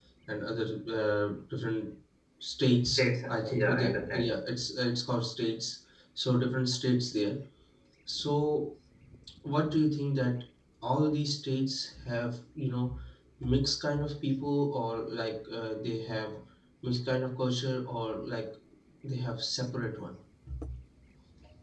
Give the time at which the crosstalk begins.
3.0 s

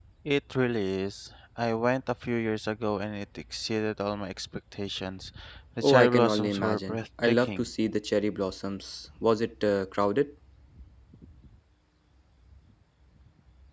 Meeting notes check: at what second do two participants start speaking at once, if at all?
5.8 s

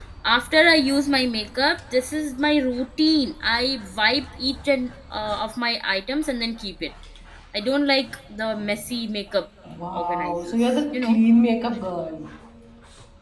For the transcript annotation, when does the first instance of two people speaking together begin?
9.9 s

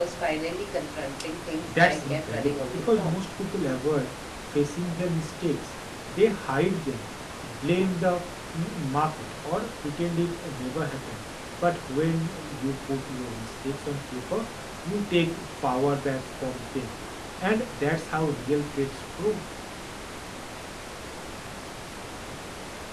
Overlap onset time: 1.7 s

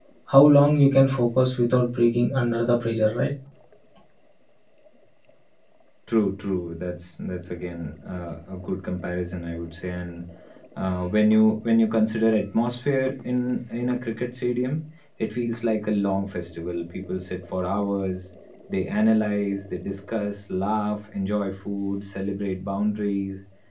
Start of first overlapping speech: none

